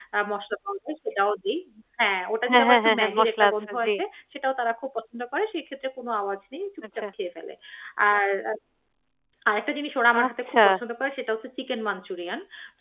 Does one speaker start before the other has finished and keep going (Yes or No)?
Yes